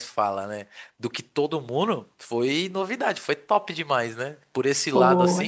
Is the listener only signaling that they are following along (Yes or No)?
Yes